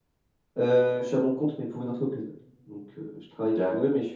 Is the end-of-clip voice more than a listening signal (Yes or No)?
Yes